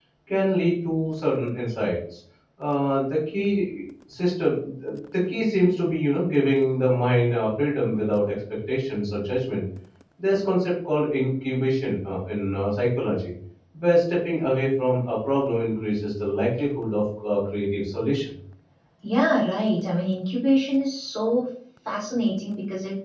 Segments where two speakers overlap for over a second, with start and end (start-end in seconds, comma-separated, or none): none